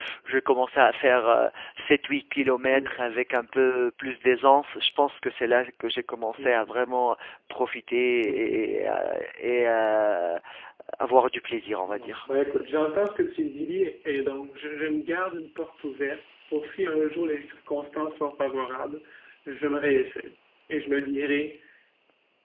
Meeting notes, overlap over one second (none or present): none